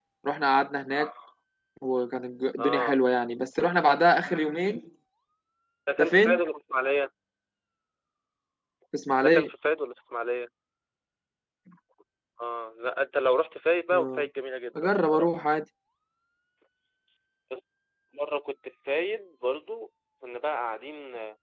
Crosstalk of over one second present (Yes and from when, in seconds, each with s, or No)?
No